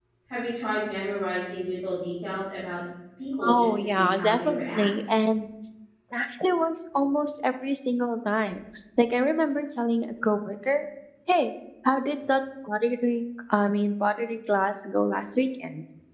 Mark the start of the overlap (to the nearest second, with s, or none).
3 s